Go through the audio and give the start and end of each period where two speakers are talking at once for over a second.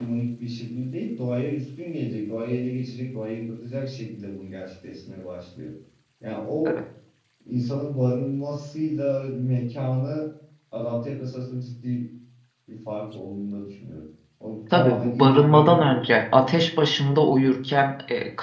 14.7-16.0

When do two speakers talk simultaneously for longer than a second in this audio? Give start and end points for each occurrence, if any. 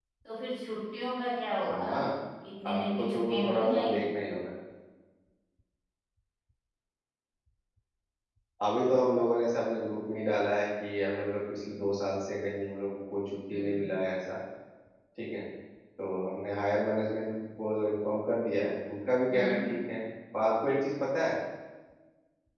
2.7-4.1

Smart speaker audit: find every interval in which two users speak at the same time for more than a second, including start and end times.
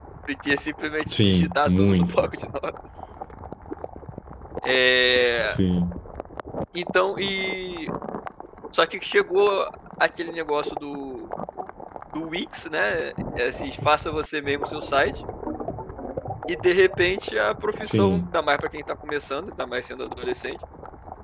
1.2-2.5

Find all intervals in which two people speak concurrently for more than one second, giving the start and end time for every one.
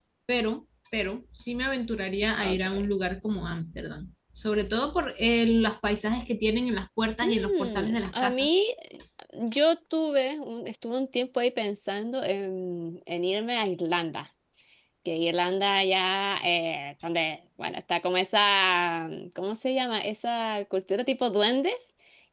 7.2-8.5

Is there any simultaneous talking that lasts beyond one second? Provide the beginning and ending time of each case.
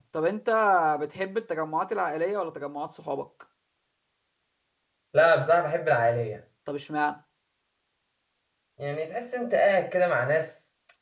none

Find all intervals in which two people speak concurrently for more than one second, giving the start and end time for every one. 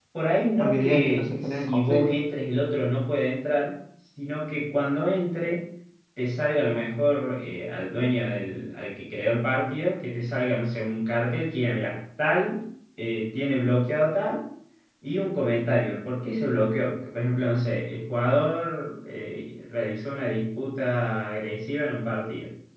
0.6-2.2

